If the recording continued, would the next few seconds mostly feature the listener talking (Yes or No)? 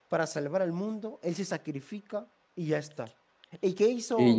No